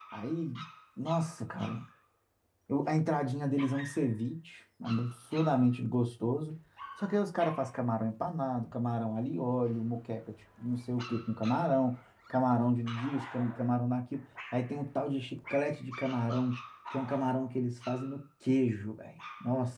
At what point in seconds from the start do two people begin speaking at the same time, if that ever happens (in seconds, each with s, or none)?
none